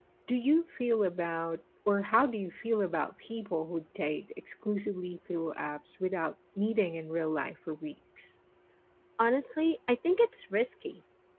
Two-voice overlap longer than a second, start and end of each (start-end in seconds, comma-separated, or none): none